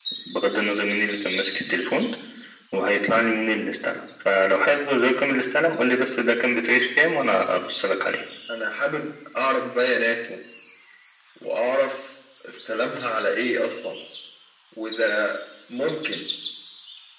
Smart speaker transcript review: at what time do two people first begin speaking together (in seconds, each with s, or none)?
none